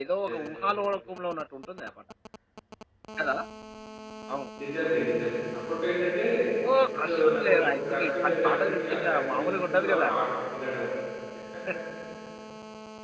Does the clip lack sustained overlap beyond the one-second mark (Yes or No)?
No